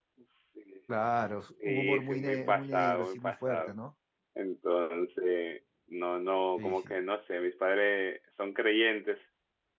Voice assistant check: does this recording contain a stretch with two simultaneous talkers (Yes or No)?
Yes